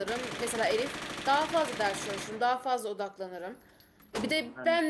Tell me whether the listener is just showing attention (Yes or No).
Yes